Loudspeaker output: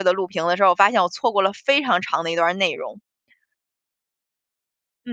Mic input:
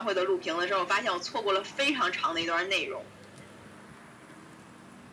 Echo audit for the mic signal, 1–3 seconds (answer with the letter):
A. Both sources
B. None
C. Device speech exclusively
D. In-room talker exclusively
C